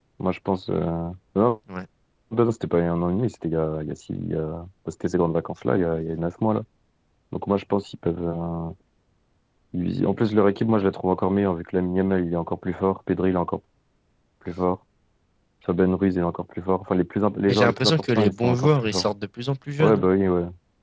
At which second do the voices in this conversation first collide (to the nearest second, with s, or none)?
17 s